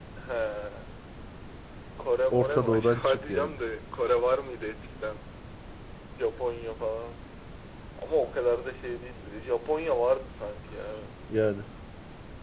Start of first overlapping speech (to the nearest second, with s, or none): 2 s